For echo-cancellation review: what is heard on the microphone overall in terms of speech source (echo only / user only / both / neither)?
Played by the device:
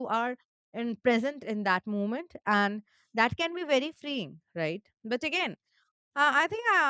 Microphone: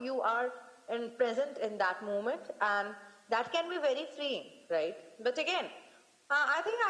echo only